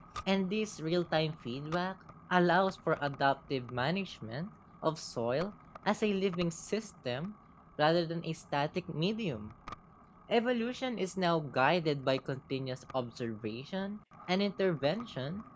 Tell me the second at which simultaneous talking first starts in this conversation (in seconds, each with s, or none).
none